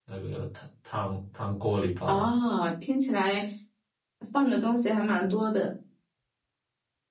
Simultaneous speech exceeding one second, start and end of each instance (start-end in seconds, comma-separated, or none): none